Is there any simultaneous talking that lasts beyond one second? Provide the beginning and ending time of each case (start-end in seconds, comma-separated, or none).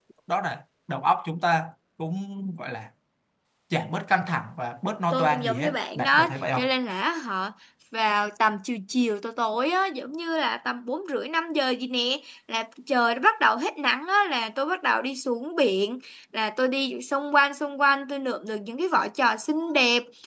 5.1-6.6